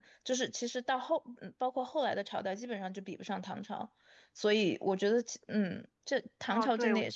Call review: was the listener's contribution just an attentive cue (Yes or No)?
No